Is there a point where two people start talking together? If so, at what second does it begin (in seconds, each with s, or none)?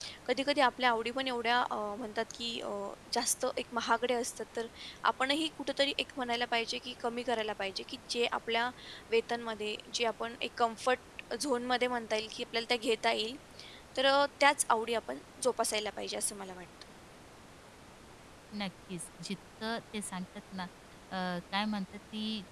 none